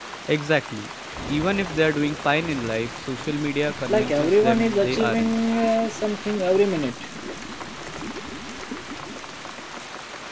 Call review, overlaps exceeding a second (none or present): present